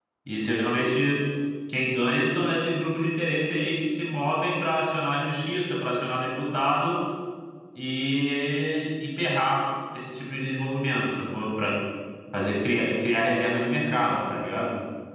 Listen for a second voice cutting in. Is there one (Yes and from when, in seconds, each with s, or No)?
No